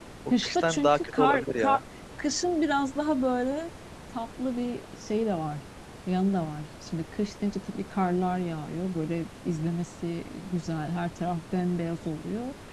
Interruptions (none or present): present